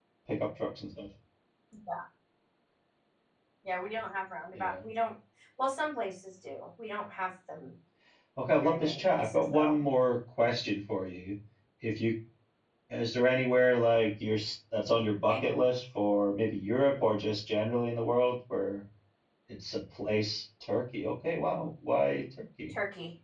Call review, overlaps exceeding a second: present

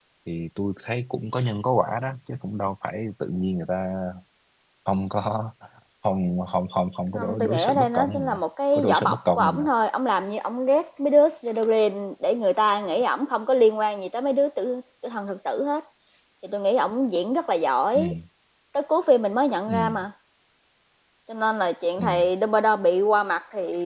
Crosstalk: present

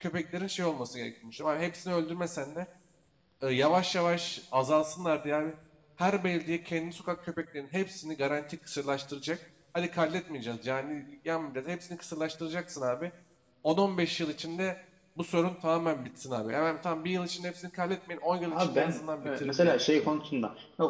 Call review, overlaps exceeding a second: present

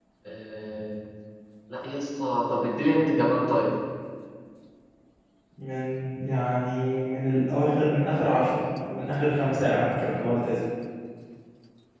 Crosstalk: none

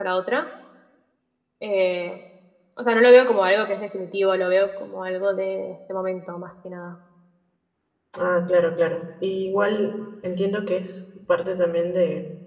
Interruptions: none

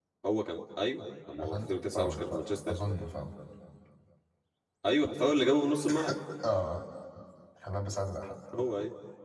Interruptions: present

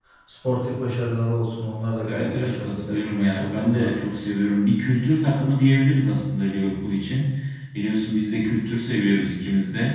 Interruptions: present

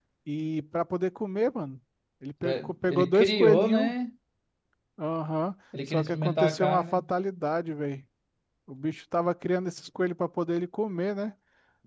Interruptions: present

